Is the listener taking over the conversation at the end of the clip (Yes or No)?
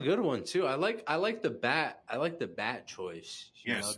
Yes